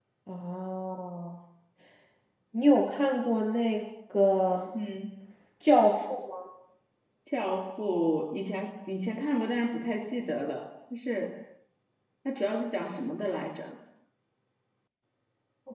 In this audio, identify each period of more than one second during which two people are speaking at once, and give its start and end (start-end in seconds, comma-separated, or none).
none